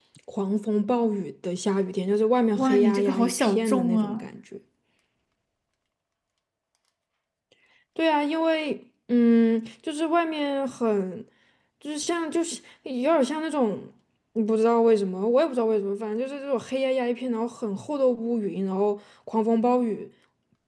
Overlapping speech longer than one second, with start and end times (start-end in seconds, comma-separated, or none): 2.6-4.2